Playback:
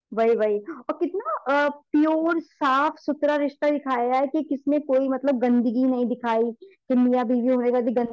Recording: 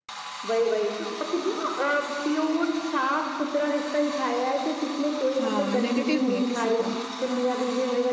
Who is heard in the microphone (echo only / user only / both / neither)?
both